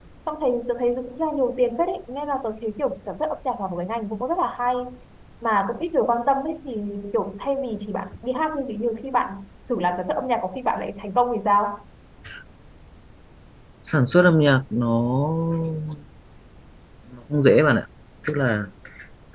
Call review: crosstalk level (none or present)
none